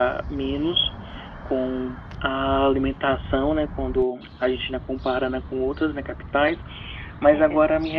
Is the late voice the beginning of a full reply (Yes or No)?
No